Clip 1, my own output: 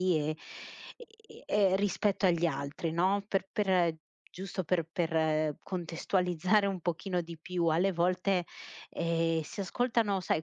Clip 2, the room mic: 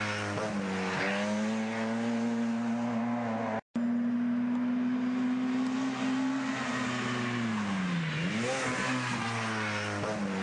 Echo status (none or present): none